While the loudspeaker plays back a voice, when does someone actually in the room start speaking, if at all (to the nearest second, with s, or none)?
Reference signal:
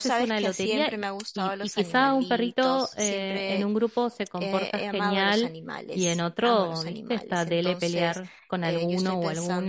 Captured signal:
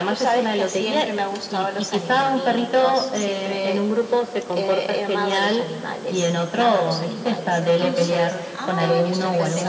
8 s